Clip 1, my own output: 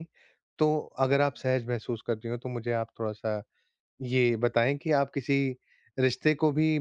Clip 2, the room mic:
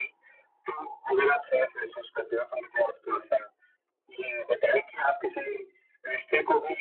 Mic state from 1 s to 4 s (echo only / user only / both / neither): echo only